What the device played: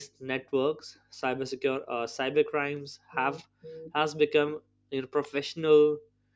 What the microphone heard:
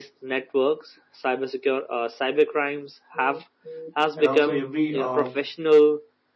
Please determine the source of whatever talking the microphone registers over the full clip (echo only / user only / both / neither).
both